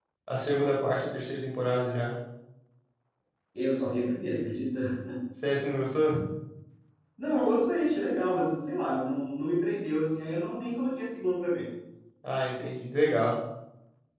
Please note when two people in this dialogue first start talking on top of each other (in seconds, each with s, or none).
none